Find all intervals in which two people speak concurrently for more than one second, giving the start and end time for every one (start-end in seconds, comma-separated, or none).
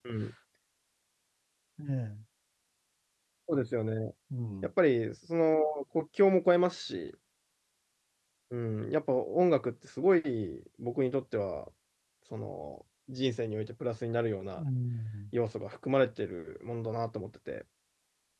none